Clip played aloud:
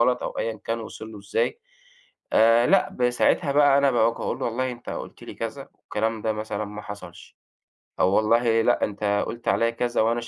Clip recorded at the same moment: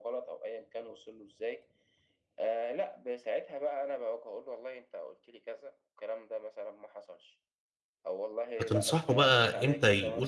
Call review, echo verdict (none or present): present